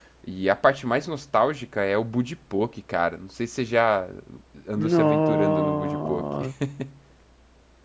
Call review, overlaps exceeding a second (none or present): present